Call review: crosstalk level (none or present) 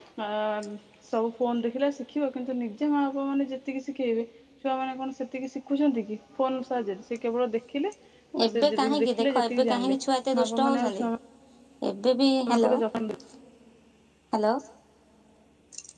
present